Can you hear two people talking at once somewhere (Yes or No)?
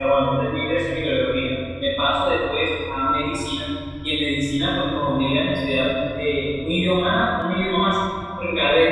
No